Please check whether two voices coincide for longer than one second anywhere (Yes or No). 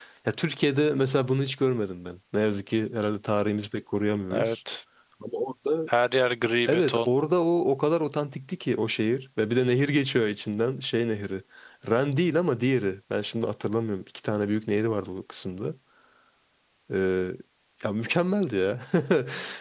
No